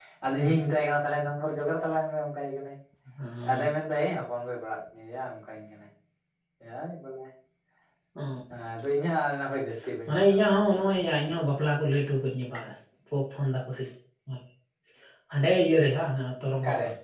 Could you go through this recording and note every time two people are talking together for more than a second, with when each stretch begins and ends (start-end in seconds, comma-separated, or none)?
10.1-11.3